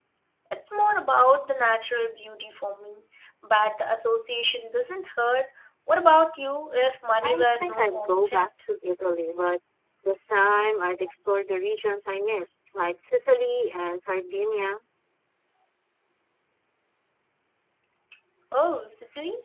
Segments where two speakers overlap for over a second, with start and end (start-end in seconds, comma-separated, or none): 7.2-8.5